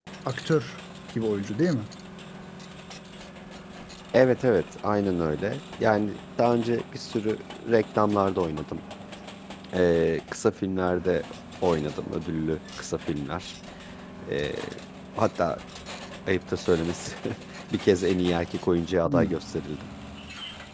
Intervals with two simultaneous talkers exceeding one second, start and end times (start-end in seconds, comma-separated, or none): none